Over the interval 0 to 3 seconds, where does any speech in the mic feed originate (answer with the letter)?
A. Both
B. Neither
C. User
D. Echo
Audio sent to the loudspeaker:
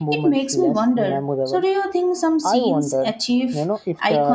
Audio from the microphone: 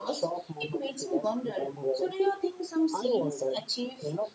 D